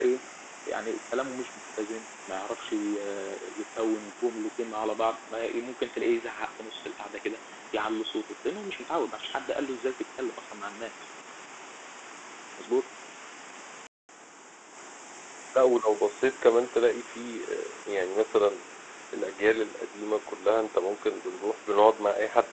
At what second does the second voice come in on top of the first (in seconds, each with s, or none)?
none